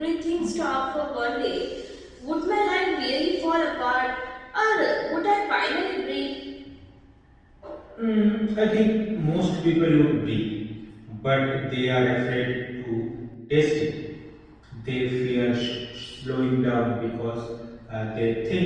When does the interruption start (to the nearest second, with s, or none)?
none